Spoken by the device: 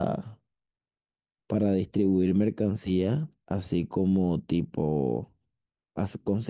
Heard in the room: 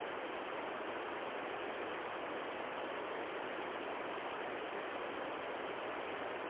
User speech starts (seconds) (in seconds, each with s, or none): none